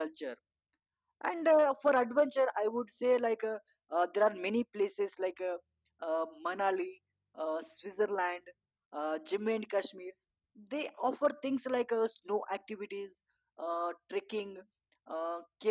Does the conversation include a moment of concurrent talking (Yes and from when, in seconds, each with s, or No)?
No